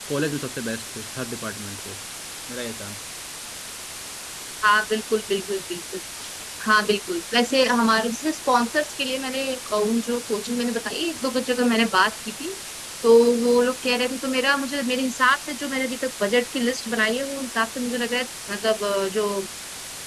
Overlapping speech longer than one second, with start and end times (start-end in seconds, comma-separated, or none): none